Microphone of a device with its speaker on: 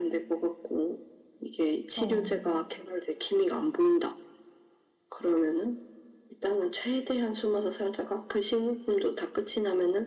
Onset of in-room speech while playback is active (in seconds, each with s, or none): 1.9 s